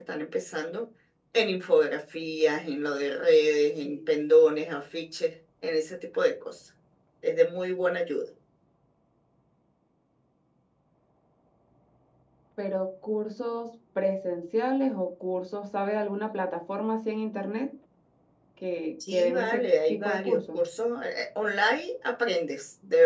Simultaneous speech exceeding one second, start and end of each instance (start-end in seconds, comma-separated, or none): 19.1-20.6